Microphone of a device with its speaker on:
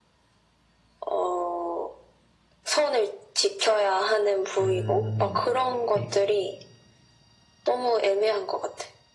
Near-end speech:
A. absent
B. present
B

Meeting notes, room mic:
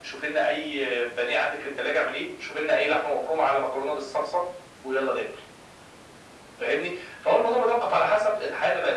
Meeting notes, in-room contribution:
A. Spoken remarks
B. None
B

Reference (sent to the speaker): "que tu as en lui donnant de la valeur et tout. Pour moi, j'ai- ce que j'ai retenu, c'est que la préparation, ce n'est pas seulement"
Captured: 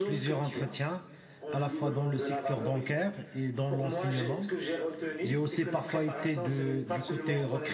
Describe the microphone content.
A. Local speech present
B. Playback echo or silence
A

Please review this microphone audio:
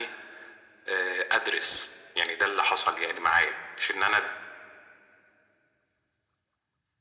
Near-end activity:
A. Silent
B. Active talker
A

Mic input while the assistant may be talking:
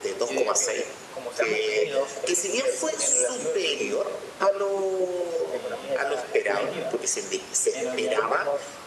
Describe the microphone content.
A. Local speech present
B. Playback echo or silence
A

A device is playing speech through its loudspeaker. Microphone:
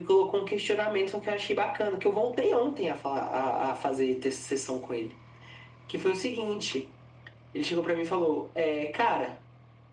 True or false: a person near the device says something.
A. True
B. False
B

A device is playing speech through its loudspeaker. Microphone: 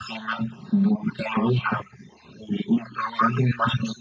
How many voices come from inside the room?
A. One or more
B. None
B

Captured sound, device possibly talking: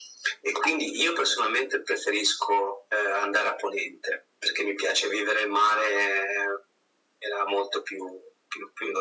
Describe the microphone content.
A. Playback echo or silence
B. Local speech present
A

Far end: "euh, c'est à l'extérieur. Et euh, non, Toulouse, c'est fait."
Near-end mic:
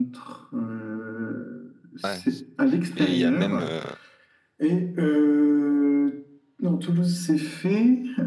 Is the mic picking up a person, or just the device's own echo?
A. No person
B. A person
B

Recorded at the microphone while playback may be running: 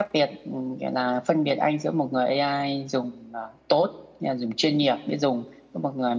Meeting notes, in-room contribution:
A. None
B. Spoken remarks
B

